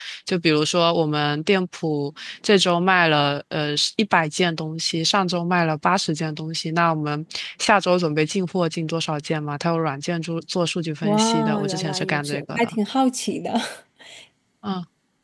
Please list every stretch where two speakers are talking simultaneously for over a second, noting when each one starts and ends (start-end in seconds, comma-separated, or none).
11.0-12.8